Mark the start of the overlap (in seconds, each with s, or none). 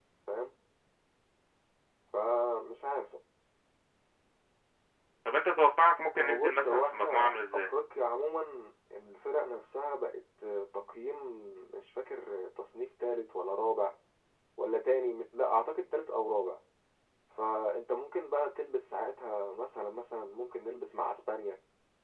6.2 s